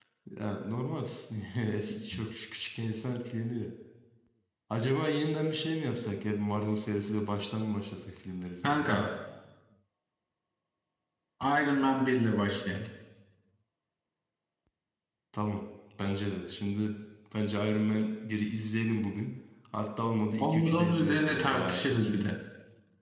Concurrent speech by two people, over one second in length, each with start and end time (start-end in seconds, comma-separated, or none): 20.4-22.1